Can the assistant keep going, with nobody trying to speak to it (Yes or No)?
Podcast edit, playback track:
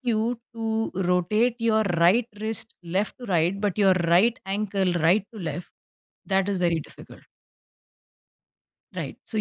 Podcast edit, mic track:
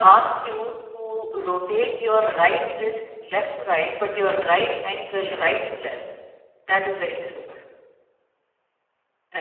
Yes